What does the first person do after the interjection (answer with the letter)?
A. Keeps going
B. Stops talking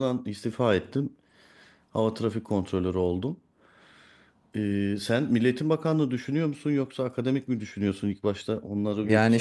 B